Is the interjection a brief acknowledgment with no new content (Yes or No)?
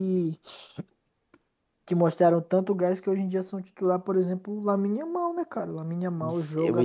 No